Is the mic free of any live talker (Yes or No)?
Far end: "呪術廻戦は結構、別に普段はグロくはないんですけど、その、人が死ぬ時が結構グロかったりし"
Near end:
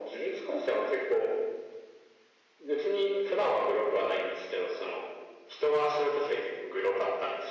Yes